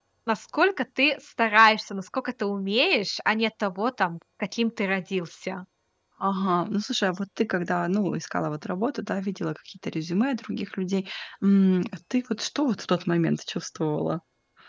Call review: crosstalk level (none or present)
none